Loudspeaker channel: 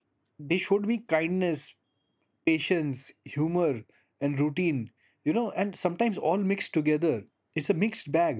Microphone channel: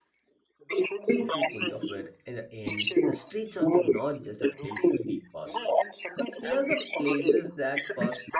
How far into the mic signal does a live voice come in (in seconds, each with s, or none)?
1.2 s